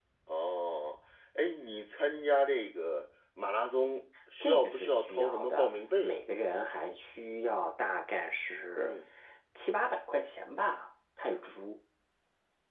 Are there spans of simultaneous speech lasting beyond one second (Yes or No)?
Yes